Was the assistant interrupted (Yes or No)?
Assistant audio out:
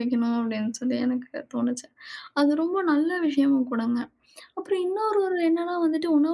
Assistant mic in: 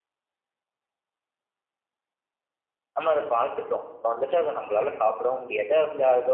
Yes